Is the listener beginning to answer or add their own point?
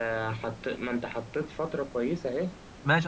Yes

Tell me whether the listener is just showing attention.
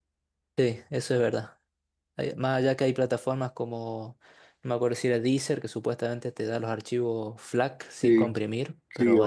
No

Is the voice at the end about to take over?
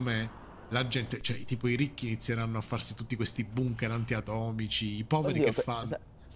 Yes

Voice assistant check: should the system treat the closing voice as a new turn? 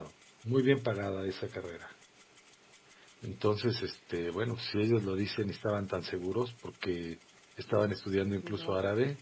No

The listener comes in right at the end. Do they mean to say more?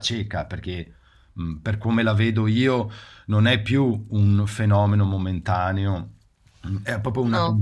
No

